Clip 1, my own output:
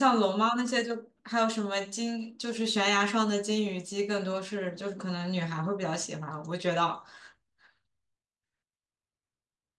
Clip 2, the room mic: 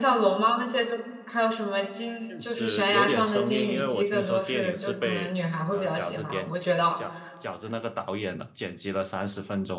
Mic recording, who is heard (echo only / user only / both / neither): both